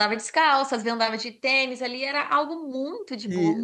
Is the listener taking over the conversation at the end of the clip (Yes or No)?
Yes